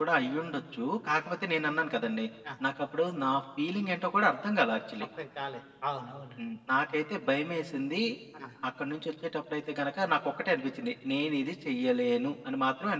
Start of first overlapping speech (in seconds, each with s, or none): none